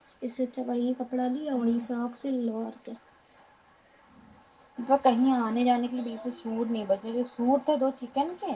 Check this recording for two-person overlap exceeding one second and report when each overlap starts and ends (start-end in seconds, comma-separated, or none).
none